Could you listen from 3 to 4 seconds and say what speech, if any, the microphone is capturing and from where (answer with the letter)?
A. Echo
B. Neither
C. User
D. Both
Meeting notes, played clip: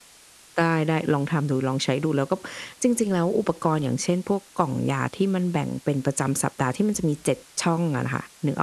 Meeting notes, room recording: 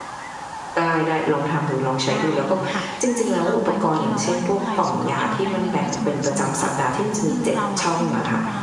D